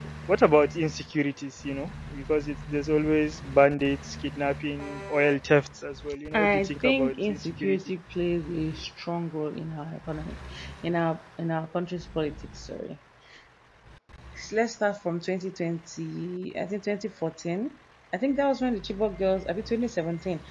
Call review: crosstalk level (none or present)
present